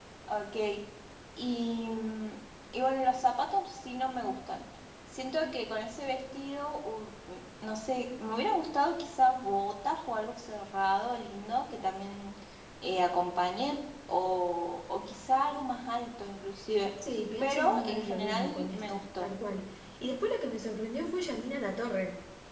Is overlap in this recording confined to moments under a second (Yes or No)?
No